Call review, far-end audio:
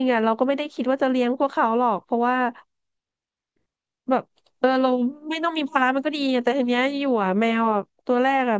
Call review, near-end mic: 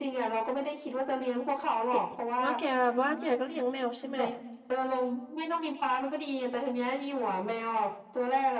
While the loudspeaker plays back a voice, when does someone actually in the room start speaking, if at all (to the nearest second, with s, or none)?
2 s